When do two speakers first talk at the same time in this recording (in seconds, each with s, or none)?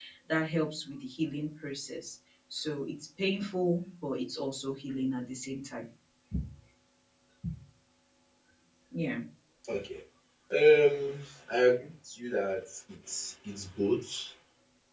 none